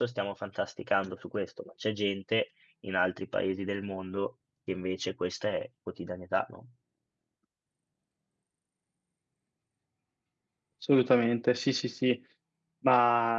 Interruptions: none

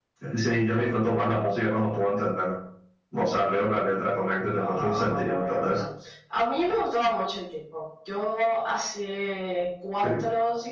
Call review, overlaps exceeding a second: present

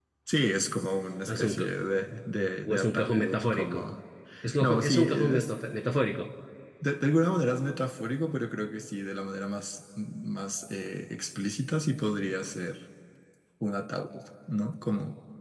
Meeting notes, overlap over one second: present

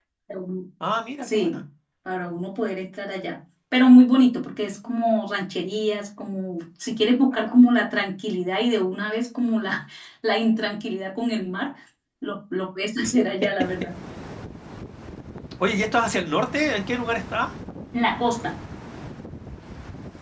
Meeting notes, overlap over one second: none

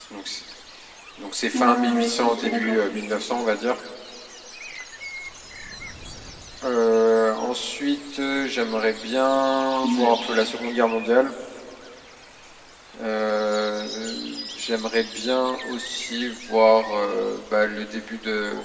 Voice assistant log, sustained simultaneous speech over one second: present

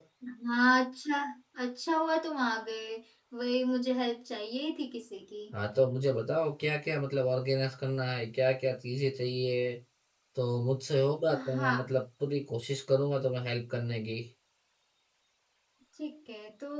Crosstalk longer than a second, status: none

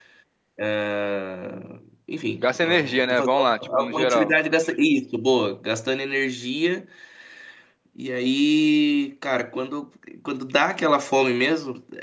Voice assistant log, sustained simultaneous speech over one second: present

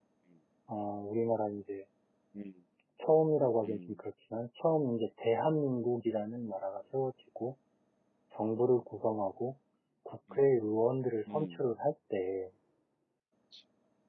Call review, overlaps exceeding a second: none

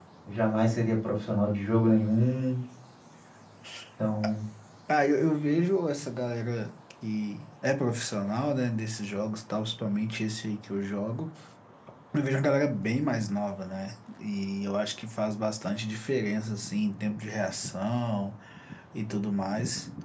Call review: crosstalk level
none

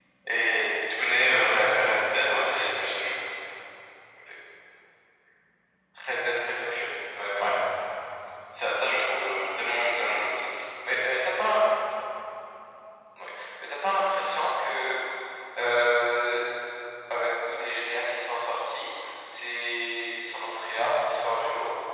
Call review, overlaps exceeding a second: present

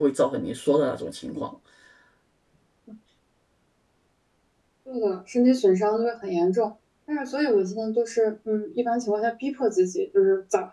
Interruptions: none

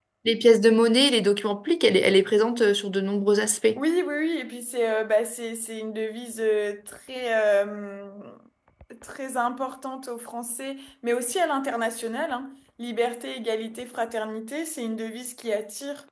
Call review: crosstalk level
none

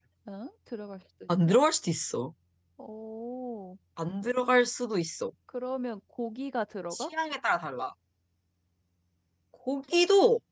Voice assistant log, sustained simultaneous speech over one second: none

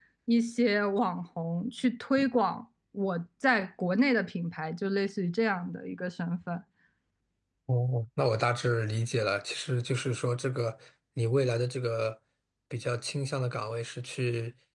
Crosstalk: none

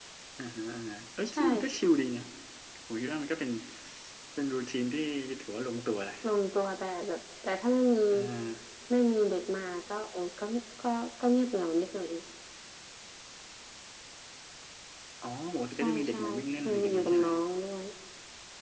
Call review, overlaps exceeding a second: present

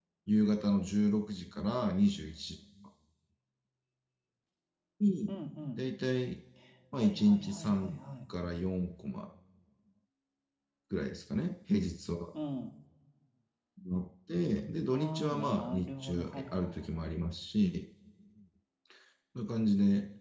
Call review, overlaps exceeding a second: present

